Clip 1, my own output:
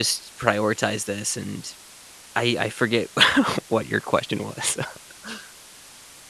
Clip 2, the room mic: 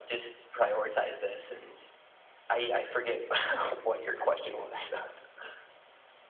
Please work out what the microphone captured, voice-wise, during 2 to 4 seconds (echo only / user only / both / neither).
echo only